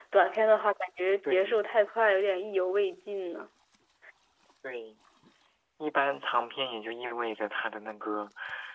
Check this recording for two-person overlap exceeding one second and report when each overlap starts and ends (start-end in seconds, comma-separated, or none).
none